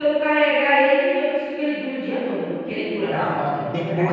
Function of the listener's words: taking over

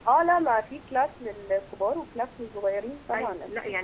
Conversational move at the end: taking over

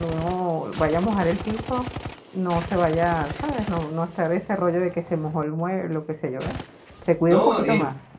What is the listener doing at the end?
taking over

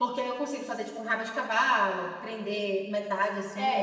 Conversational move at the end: taking over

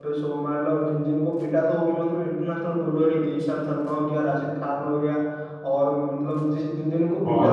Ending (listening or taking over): listening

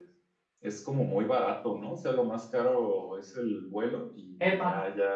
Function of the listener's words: listening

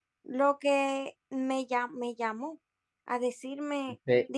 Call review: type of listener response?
taking over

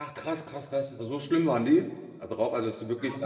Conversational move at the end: taking over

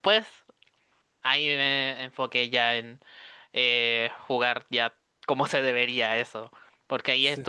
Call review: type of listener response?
listening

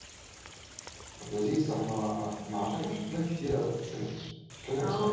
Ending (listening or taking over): taking over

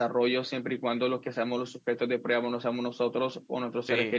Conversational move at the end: listening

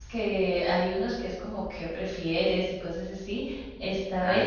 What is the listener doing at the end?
listening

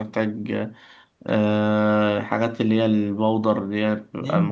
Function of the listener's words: taking over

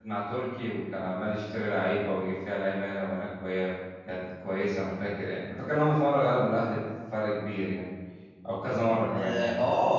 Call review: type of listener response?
taking over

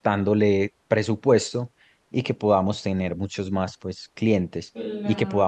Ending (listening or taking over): listening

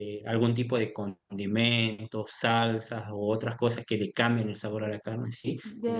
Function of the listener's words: listening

